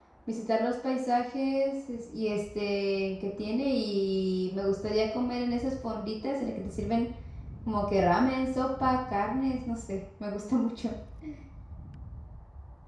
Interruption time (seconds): none

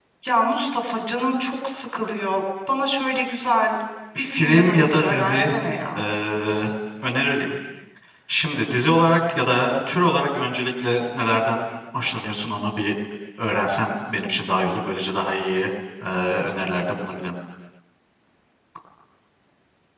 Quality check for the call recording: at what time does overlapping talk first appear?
4.2 s

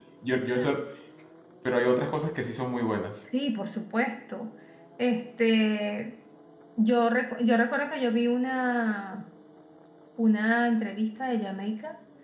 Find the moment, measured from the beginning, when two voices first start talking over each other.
none

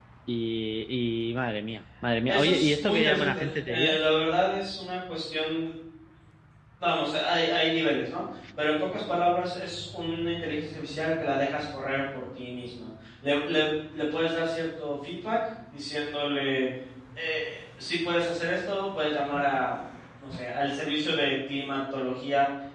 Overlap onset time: 2.3 s

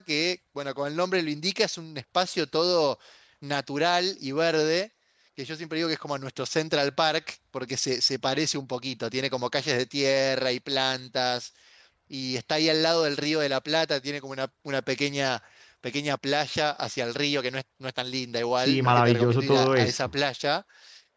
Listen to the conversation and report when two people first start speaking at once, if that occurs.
18.6 s

